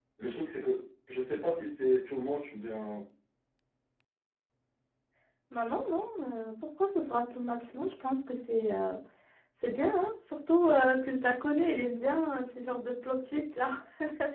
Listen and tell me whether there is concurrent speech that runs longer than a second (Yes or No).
No